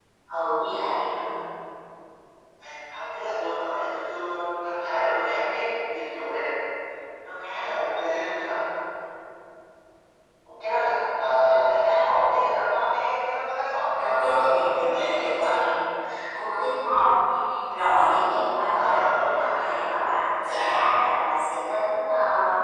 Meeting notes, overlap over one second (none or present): present